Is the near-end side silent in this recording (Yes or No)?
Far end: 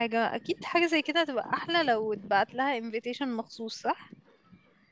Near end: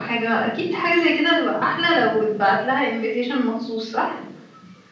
Yes